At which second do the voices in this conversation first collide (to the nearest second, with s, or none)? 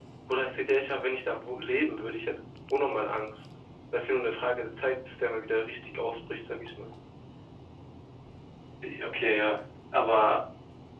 none